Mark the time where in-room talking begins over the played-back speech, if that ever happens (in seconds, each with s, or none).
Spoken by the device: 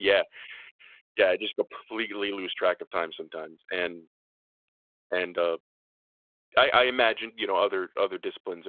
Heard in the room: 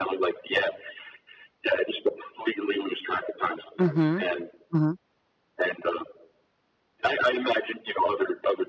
3.8 s